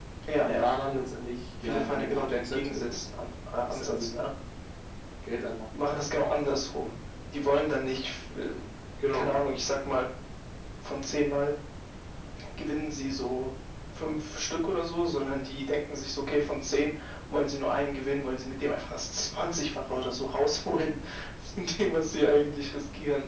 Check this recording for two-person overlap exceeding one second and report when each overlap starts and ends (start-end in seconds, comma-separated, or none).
1.6-3.0